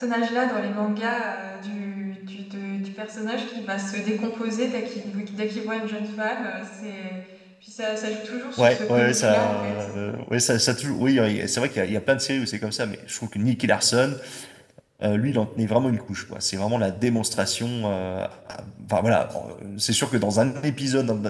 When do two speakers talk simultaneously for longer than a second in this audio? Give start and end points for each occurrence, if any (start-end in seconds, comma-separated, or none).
8.6-9.9